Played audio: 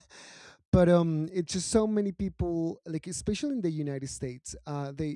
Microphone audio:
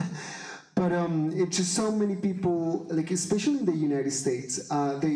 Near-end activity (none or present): none